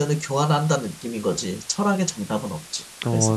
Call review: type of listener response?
taking over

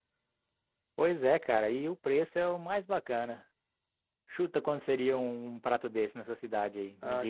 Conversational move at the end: taking over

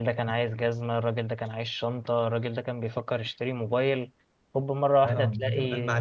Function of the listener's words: taking over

